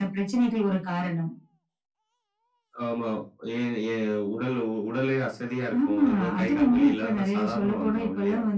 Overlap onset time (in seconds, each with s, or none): 5.7 s